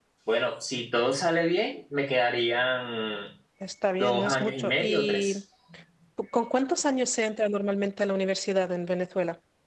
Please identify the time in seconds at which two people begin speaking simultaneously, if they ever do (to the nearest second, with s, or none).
4 s